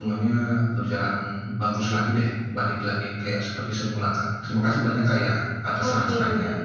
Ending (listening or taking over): taking over